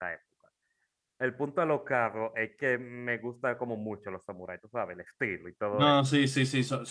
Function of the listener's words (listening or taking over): taking over